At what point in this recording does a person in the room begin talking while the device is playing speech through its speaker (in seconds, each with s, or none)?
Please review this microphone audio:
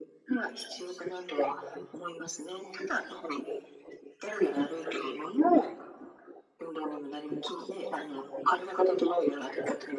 none